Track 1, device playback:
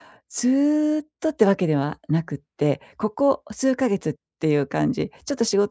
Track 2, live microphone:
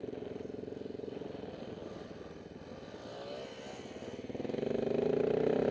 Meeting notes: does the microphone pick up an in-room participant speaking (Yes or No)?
No